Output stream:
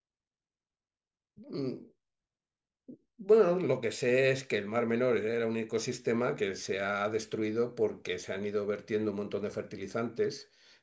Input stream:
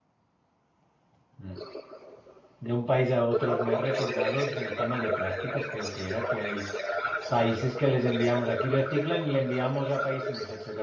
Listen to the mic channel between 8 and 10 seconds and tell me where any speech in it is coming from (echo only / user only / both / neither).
both